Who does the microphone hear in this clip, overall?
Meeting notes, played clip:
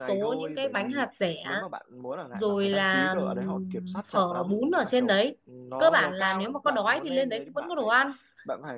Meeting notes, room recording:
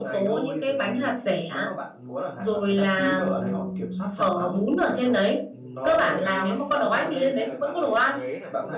both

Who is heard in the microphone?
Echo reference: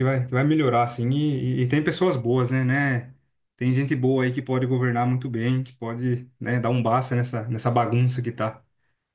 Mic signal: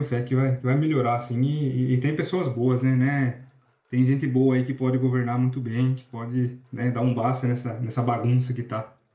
echo only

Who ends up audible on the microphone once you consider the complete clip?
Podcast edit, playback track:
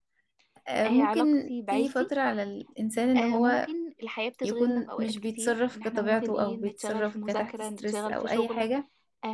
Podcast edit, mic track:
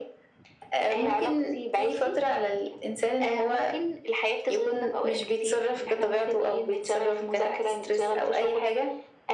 echo only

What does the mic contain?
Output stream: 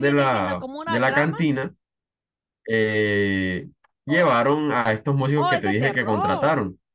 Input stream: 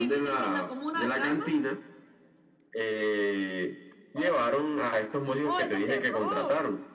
echo only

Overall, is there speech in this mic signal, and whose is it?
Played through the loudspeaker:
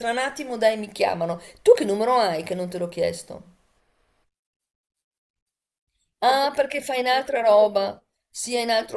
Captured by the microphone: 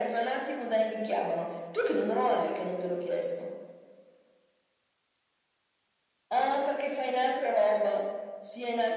echo only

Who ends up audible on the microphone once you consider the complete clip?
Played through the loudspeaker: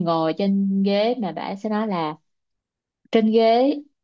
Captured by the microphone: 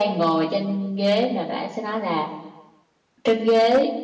echo only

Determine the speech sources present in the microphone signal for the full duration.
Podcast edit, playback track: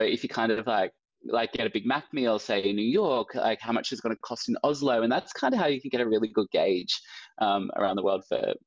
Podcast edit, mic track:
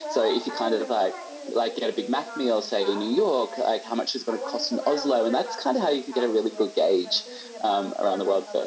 both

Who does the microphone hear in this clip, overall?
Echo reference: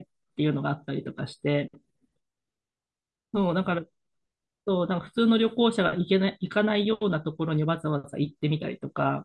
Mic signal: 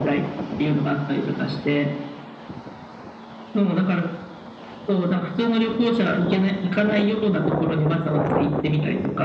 echo only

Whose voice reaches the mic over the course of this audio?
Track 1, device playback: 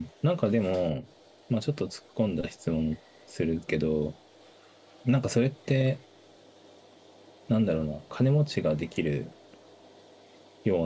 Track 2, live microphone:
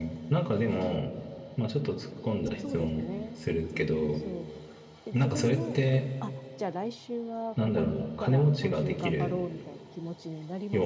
both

